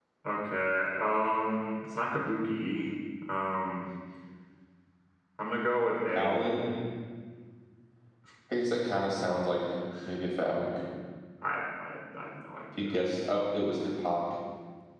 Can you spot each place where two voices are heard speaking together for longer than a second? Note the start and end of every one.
none

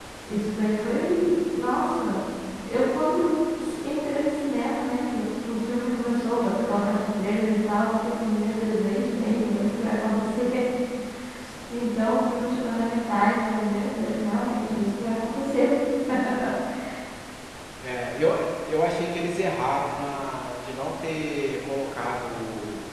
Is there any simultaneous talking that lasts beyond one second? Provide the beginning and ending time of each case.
none

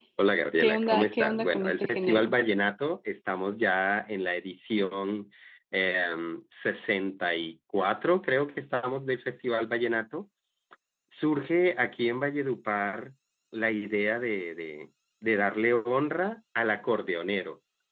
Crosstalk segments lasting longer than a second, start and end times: 0.6-2.3

